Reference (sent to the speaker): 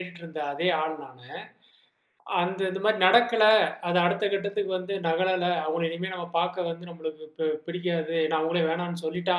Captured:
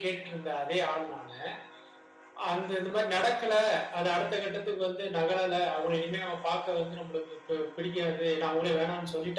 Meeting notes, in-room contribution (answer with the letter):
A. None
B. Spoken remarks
A